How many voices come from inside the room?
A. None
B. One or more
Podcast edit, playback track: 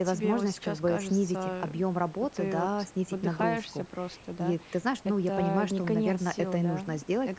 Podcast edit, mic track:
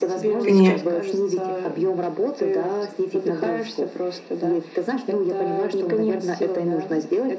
B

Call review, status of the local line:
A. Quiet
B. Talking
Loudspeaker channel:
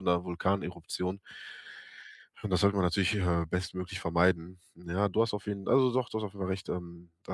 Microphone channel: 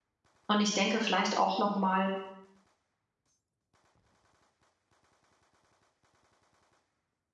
B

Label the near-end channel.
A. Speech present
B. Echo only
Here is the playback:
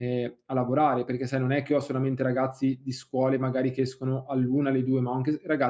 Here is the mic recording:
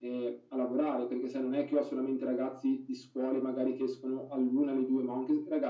B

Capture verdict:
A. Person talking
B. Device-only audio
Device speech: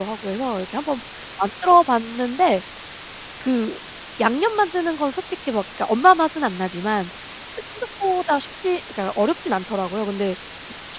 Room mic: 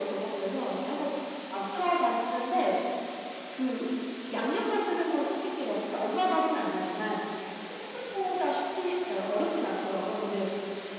B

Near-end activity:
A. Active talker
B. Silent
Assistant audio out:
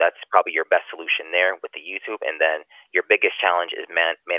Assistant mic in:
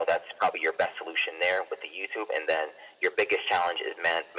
B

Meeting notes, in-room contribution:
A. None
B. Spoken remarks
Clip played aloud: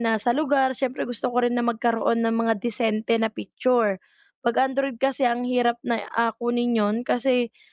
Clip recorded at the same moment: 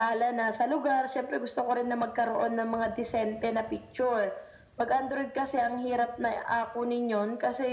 A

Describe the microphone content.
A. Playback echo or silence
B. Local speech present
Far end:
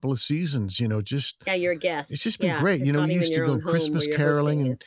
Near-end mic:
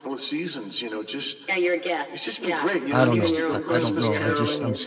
B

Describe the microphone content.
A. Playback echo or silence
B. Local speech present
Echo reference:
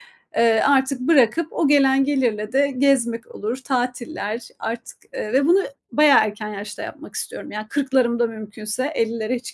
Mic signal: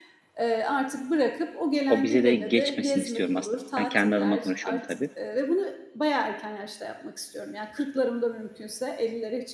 B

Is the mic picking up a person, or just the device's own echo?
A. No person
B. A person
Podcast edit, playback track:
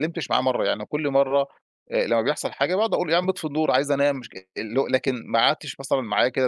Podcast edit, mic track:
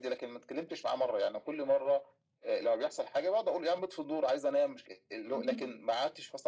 B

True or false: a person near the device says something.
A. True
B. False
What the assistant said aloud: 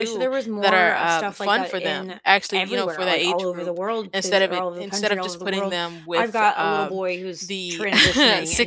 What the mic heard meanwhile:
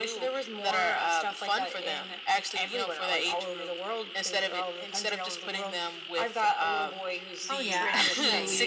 A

